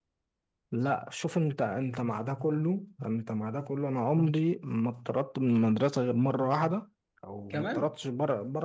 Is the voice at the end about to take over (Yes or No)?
No